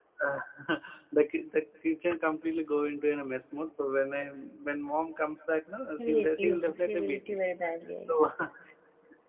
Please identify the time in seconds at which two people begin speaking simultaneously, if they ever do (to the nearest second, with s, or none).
6 s